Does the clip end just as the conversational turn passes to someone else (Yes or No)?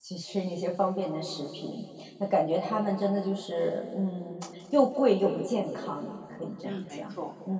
Yes